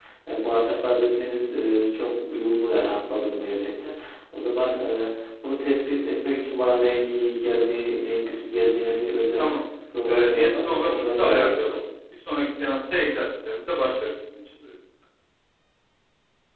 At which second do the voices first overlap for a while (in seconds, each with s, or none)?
10.1 s